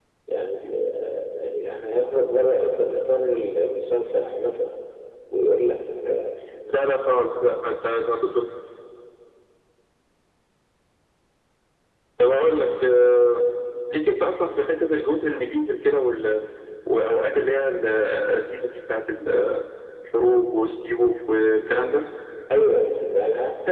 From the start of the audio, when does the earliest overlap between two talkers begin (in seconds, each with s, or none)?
none